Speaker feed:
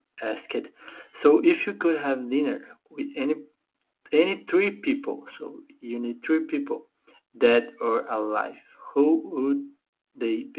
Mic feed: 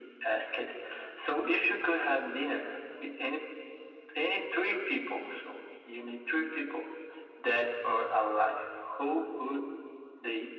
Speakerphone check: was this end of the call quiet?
Yes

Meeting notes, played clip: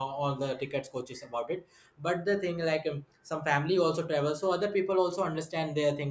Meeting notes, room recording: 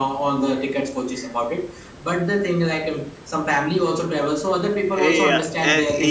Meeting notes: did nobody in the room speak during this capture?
No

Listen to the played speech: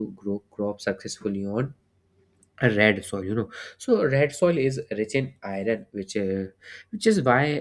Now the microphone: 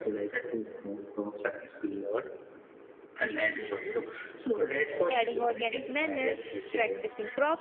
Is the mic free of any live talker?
No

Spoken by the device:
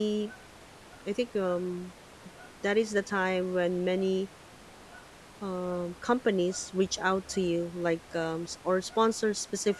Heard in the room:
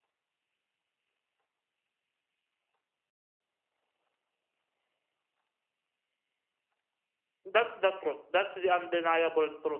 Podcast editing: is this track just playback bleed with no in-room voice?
No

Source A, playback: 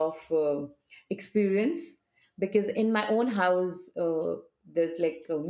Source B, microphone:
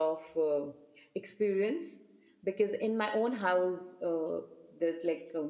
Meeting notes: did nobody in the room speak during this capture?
Yes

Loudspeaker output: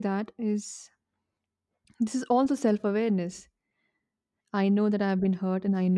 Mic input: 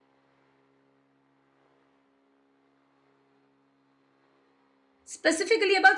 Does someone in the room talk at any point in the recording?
Yes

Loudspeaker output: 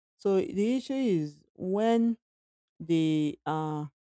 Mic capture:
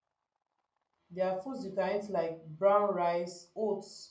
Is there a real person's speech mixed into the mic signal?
Yes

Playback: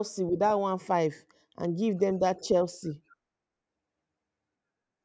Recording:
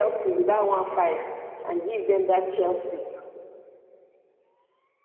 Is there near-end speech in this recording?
No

